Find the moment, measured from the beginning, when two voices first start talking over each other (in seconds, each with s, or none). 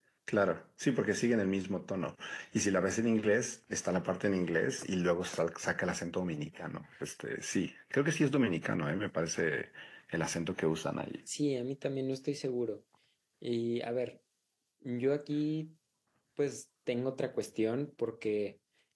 none